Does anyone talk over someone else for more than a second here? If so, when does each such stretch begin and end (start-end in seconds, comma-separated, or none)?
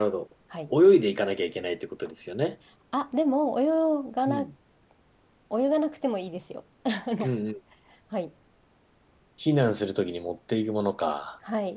none